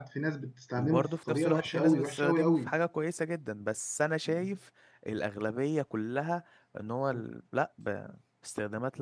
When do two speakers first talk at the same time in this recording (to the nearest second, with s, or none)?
1 s